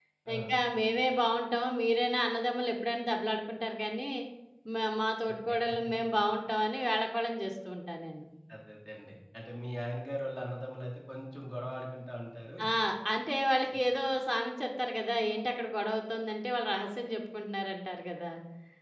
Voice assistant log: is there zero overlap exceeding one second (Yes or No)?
Yes